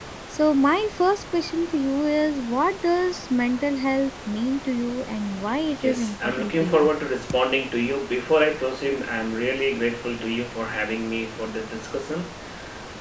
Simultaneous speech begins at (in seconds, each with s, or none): 5.7 s